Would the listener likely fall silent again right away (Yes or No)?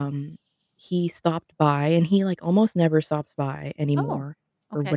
Yes